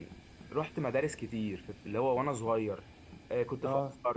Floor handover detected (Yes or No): No